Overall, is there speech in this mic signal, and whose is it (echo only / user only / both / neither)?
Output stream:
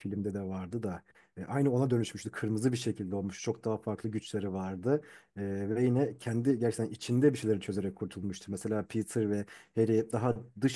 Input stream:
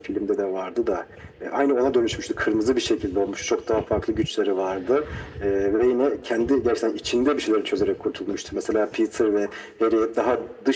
echo only